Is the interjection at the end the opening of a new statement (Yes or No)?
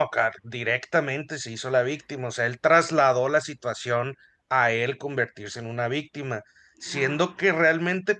No